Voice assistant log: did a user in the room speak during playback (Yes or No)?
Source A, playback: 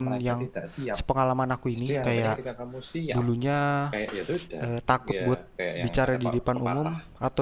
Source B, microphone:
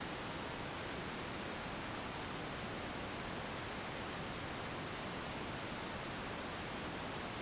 No